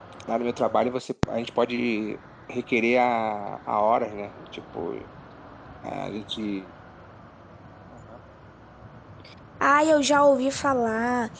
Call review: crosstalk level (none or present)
none